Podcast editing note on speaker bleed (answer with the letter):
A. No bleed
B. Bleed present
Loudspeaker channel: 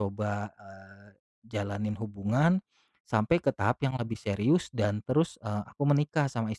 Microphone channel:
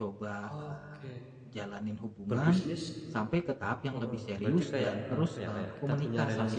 B